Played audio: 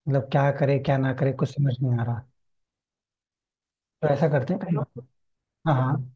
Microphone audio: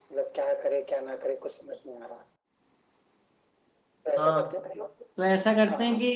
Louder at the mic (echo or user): user